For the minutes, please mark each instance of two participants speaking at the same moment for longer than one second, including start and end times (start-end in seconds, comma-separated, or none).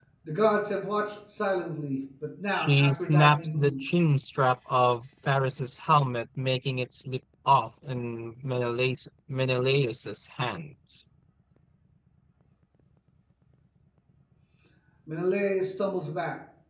2.5-3.9